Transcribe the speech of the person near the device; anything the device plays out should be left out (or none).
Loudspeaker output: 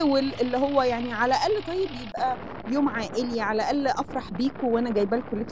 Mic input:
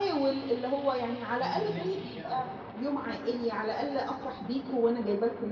أيوه، نِفْسِك يعني.